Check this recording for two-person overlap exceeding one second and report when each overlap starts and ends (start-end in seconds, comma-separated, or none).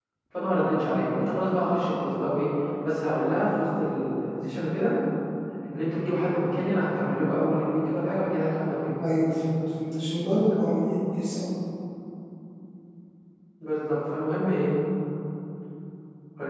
none